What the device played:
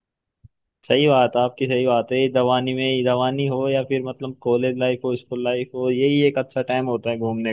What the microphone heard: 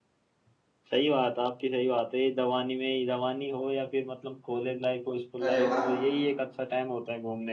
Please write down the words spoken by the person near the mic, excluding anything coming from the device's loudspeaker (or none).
अरे वाह